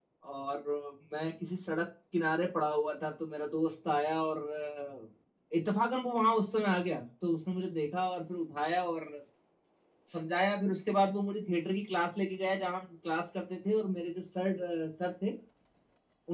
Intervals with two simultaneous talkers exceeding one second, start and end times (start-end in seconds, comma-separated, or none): none